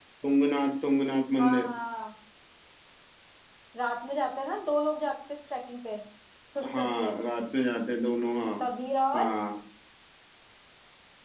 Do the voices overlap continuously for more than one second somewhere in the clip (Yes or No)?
No